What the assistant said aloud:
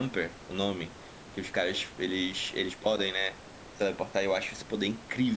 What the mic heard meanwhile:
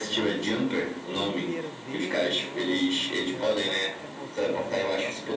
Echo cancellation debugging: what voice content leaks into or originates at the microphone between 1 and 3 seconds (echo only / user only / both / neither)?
both